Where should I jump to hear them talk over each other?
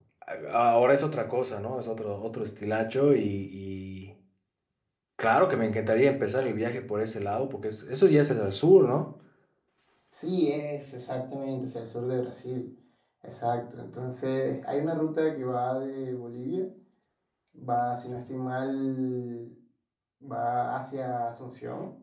none

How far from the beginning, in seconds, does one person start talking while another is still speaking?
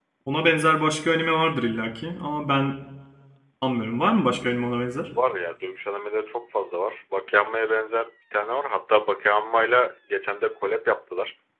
none

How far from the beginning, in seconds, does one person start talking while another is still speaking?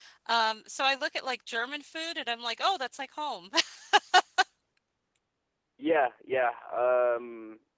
none

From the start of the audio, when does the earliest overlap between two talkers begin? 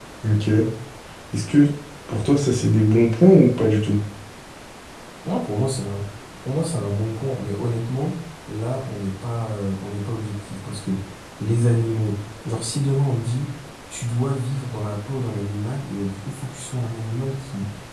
none

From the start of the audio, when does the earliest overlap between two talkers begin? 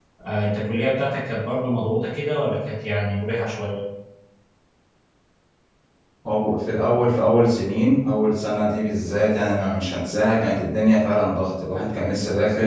none

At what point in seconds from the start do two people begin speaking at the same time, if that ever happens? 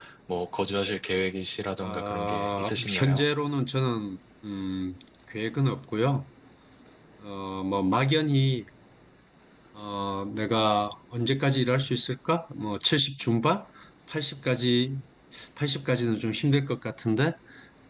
1.8 s

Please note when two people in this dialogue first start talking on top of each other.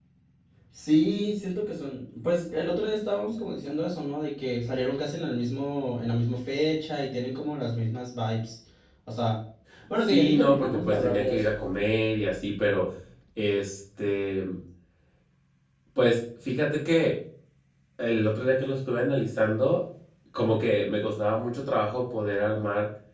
10.1 s

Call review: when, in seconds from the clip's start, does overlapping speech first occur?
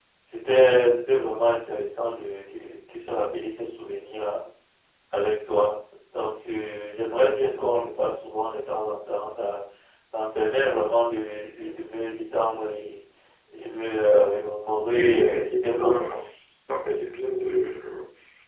14.9 s

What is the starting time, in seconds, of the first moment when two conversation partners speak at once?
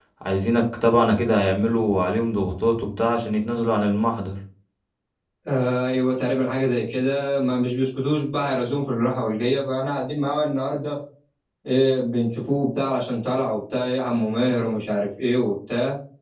none

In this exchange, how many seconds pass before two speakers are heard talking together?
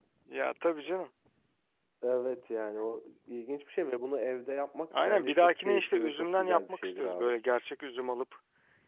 4.9 s

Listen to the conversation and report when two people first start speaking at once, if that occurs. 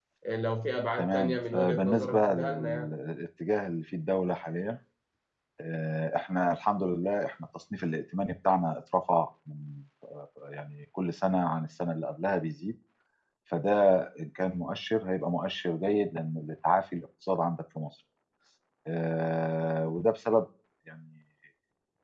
1.0 s

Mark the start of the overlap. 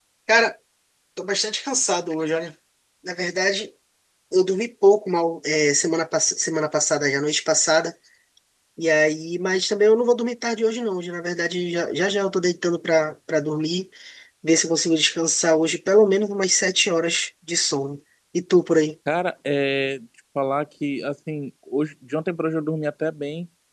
none

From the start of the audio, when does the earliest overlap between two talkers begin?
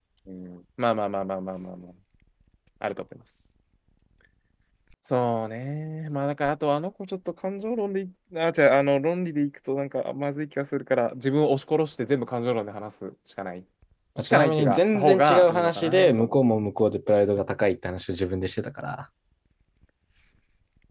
14.2 s

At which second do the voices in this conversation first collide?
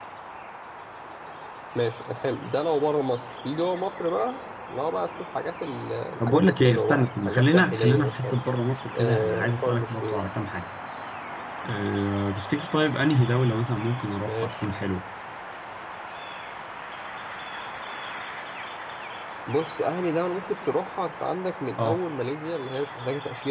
6.3 s

